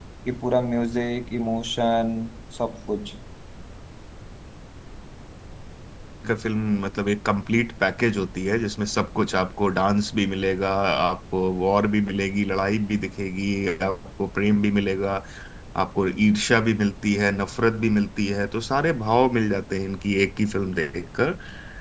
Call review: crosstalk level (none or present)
none